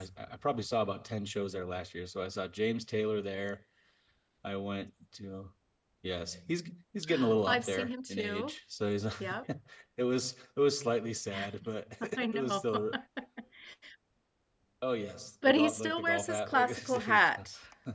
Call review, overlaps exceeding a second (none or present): present